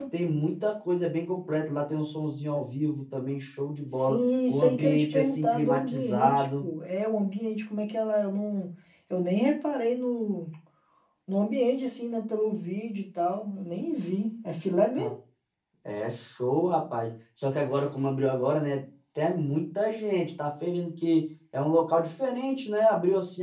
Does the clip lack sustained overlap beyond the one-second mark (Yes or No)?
No